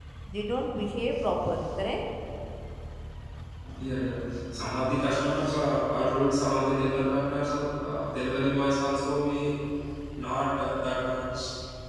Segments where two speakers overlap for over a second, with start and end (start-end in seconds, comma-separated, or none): none